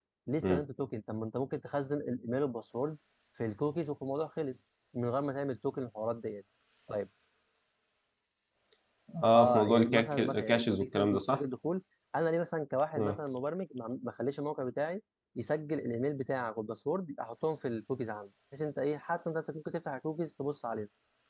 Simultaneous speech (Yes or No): Yes